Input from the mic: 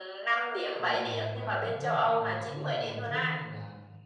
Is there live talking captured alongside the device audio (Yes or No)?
Yes